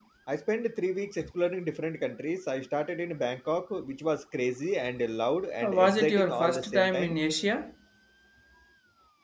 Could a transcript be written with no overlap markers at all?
No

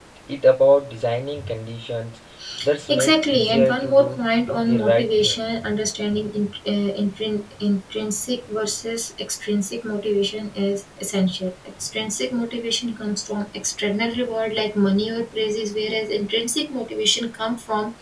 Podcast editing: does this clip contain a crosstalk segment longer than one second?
Yes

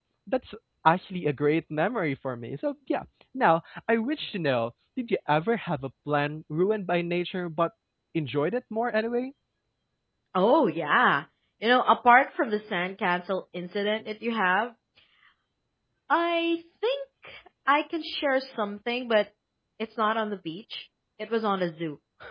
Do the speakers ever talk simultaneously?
No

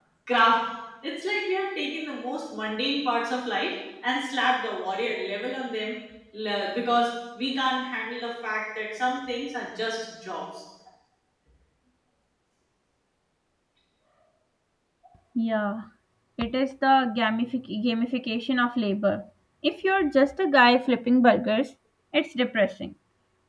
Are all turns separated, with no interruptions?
Yes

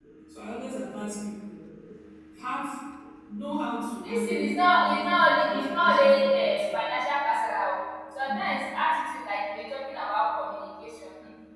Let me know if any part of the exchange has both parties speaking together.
Yes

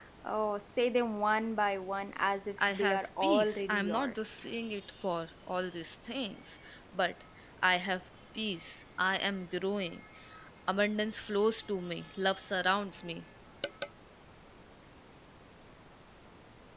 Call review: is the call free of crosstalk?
No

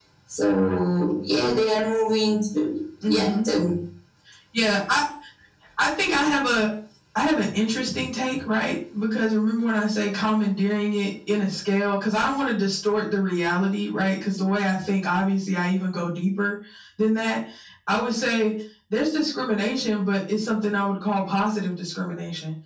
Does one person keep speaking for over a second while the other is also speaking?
No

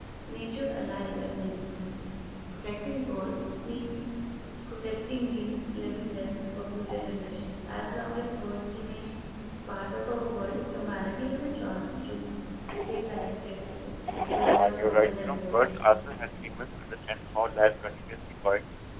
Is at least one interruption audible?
Yes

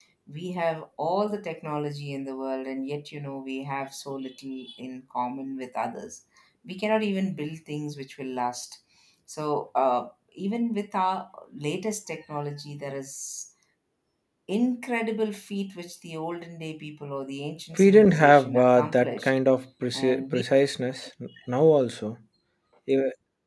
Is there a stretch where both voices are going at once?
Yes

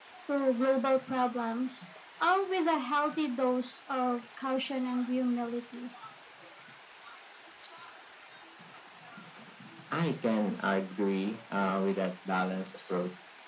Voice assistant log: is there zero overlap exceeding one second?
Yes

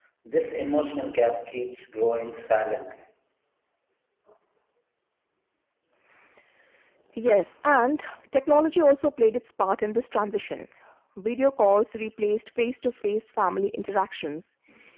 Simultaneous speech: No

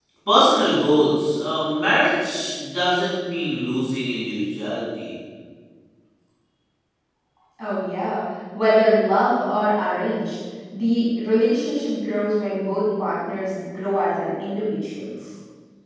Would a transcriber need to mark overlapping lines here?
No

